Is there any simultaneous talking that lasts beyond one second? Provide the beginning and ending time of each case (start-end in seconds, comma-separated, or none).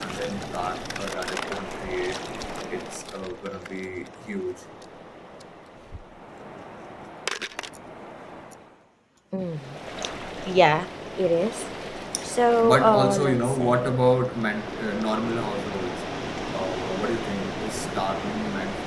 12.6-14.0